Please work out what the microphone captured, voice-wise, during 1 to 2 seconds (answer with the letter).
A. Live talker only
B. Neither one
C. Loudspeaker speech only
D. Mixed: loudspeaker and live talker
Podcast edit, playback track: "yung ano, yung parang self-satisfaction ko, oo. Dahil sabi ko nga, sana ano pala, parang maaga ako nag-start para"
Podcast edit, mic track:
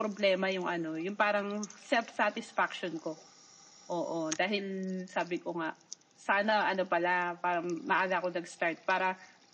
C